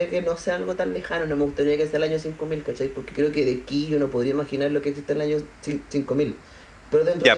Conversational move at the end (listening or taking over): taking over